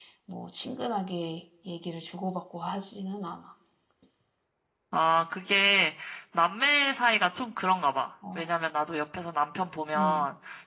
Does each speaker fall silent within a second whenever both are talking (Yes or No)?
Yes